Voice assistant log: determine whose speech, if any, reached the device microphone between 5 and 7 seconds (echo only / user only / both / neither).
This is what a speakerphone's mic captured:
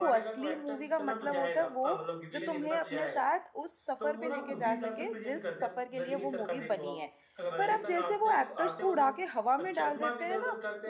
both